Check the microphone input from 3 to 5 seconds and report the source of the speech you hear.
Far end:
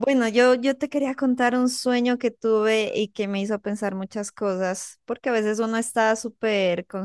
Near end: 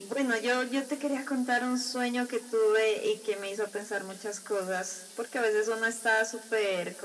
echo only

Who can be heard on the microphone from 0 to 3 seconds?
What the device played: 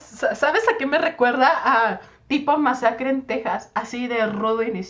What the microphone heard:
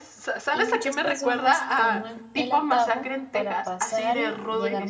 both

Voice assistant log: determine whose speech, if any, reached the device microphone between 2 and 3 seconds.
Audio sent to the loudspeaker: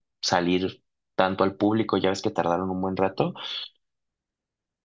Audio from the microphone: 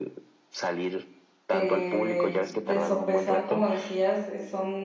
both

